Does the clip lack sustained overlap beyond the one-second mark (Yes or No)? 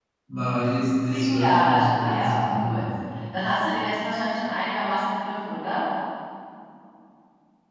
No